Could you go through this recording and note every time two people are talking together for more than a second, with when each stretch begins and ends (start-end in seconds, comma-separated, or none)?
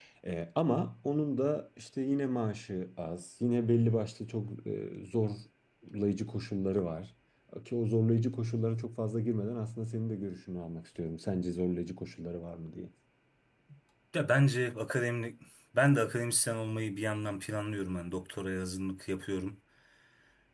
none